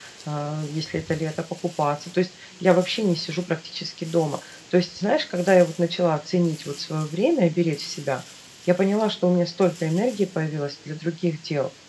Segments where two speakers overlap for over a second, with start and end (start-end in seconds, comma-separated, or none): none